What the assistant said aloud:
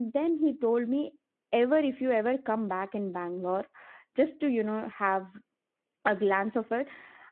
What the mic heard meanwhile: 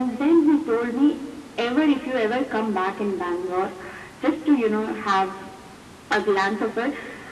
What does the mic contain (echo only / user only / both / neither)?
echo only